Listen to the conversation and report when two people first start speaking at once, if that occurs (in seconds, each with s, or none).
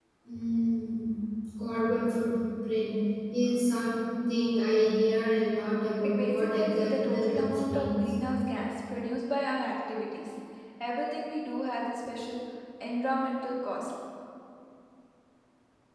6.0 s